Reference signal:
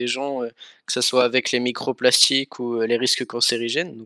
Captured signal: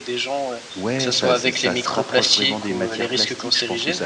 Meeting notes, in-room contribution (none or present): present